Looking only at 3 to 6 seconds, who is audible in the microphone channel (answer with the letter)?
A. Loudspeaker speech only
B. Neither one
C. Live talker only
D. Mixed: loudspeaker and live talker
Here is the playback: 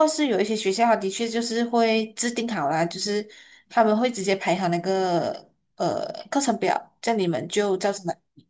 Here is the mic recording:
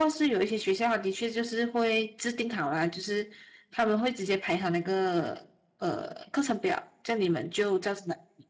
A